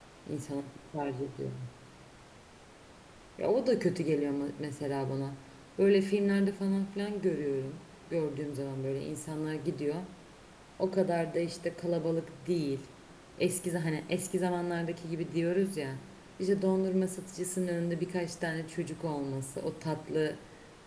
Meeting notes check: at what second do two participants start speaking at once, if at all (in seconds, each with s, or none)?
none